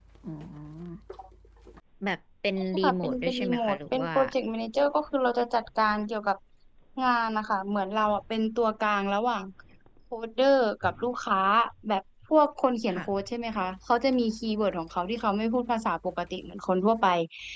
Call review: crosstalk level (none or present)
present